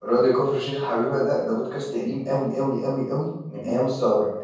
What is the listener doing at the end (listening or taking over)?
listening